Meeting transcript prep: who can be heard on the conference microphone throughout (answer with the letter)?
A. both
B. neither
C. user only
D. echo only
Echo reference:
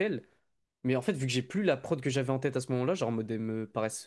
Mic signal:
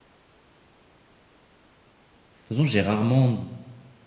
C